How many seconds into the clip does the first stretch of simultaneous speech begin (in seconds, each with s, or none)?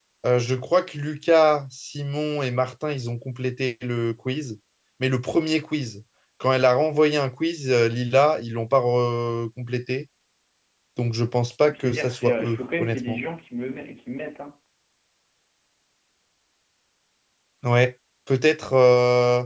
11.8 s